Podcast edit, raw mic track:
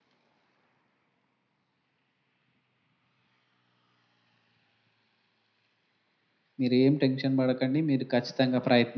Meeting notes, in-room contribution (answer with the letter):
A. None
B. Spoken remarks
B